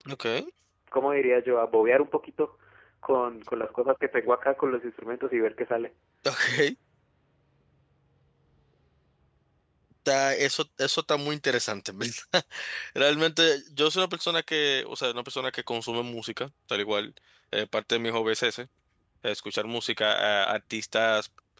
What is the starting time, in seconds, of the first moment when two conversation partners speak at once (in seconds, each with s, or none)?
none